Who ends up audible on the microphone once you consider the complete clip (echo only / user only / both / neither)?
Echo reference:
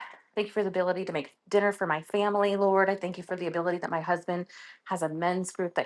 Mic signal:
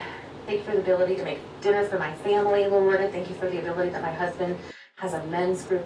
echo only